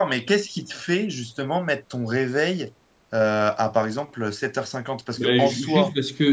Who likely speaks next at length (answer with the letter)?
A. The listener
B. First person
A